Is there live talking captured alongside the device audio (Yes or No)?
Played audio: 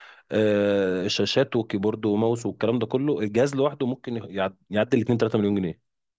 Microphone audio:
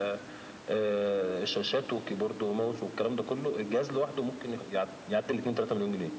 No